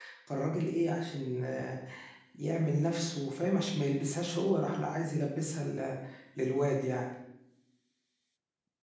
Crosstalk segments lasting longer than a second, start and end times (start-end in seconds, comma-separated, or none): none